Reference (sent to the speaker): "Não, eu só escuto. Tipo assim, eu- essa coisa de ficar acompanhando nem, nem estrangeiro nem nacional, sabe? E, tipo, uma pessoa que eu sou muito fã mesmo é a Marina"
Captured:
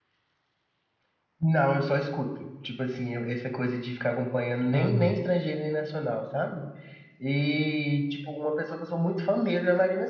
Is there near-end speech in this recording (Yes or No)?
Yes